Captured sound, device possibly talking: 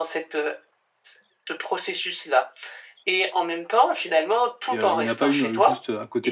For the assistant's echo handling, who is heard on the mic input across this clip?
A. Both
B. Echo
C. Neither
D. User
A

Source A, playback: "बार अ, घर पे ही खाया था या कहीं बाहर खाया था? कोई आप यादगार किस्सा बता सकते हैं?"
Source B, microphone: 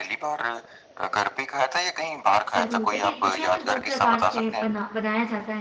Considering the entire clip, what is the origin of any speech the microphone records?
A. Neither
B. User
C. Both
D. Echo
C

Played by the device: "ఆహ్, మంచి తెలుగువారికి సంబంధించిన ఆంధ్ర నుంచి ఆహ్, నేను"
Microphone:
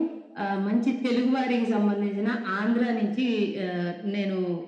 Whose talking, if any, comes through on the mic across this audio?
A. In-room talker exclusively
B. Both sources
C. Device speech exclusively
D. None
C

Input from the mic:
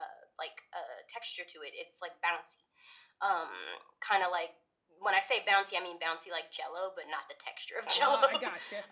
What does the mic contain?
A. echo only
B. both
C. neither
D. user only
B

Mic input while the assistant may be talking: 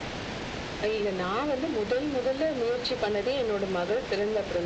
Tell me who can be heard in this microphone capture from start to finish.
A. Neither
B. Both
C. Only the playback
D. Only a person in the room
C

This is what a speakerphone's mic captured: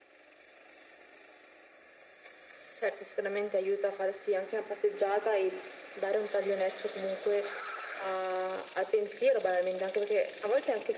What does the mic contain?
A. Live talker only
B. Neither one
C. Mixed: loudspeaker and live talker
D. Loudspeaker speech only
D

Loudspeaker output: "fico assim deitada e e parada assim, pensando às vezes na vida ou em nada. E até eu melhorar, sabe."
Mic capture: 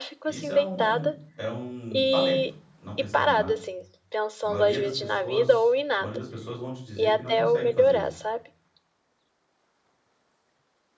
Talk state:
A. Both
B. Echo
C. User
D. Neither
A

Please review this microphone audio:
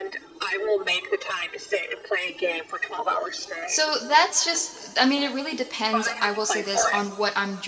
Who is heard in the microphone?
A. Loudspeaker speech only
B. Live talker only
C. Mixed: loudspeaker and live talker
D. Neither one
C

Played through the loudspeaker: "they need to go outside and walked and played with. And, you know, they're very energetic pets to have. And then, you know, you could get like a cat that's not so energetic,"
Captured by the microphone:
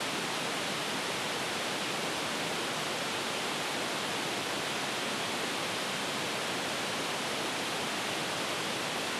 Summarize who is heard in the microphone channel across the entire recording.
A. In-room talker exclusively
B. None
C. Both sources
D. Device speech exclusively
B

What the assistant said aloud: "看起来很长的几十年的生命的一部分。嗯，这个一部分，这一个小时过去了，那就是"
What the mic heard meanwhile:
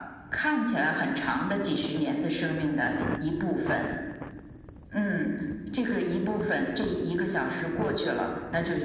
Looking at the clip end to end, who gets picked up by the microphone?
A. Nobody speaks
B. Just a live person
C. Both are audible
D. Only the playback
D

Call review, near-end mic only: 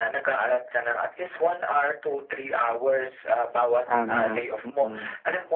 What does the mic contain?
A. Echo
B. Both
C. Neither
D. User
B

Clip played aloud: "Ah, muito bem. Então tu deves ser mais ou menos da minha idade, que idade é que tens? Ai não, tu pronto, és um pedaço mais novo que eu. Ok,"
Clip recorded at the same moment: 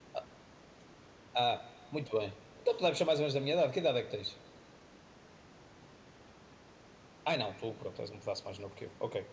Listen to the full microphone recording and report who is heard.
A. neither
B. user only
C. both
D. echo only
D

